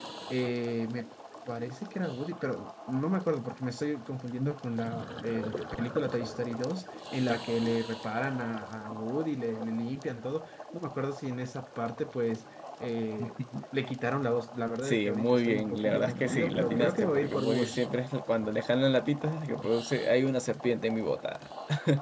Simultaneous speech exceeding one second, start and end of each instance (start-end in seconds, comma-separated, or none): 14.8-17.8